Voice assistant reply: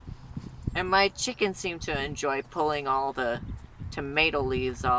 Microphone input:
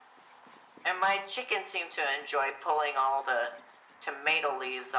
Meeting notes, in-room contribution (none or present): none